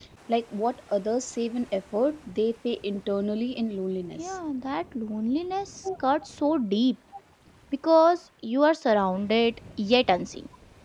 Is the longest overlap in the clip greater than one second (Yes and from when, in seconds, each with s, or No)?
No